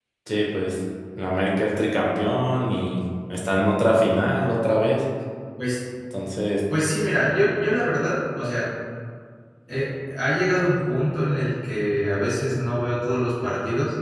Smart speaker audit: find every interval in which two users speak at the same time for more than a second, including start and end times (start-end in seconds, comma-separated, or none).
none